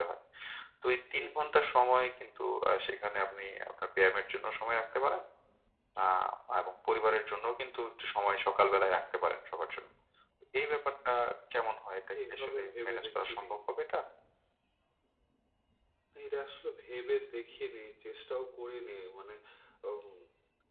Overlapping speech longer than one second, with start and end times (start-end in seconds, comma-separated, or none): 12.3-13.5